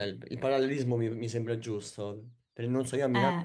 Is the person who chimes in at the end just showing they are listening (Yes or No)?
Yes